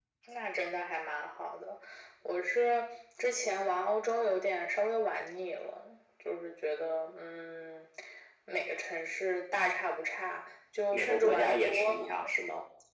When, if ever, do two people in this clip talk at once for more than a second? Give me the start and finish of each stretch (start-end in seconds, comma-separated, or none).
10.9-12.3